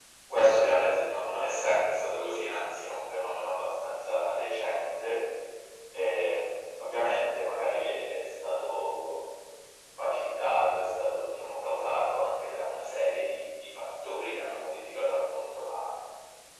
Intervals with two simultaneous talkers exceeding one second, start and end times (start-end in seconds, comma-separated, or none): none